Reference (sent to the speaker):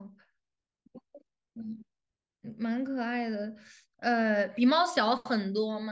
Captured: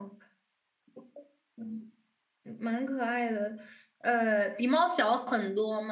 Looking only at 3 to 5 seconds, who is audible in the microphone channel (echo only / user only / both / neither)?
echo only